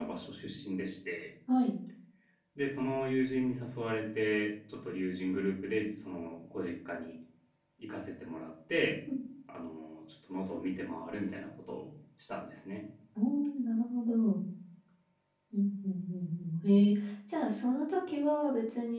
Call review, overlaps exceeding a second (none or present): none